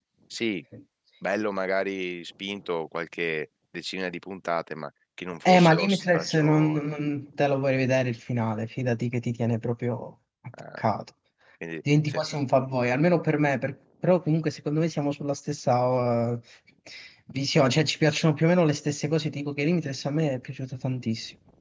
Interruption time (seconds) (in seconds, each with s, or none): 5.4 s